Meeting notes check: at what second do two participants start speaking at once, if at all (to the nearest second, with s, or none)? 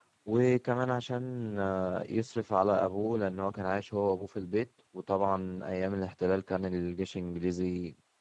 none